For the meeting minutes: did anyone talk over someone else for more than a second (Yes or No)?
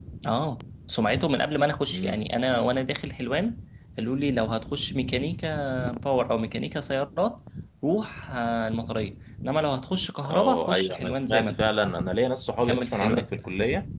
Yes